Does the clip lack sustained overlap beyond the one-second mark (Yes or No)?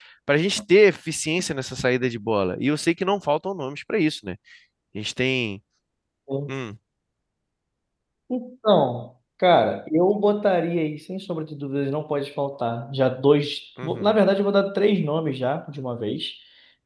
Yes